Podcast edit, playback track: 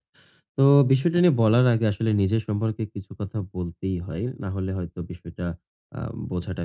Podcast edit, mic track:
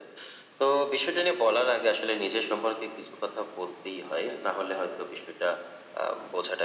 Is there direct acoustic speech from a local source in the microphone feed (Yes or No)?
No